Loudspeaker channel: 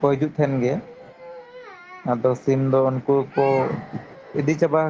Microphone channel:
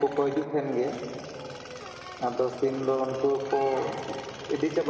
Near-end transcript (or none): none